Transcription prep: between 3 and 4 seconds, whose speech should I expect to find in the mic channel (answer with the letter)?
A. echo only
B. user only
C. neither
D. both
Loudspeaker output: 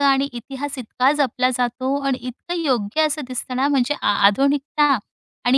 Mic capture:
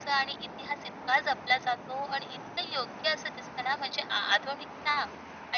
A